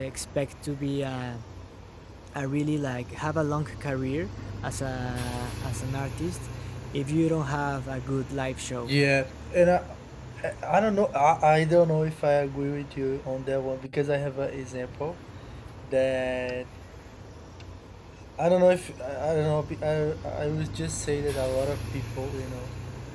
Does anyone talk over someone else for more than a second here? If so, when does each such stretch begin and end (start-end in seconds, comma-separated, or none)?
none